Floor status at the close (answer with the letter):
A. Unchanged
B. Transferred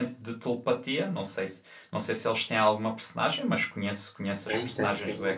B